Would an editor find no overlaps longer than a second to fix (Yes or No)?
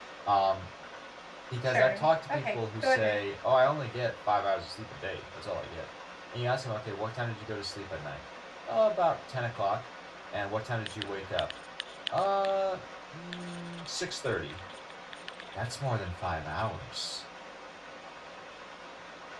No